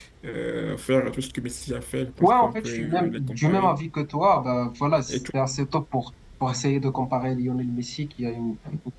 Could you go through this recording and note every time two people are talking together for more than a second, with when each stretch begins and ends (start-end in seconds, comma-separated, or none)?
2.2-3.8